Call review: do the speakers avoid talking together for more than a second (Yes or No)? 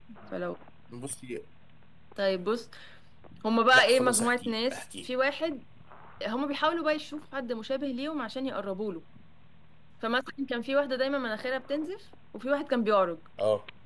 No